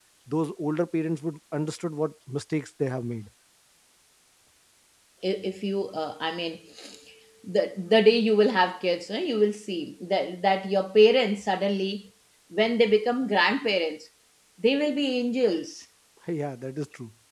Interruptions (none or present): none